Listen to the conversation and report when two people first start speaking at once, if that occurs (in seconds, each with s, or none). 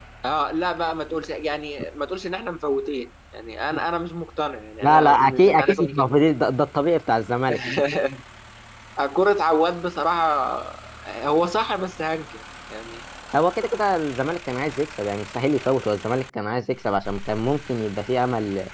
4.8 s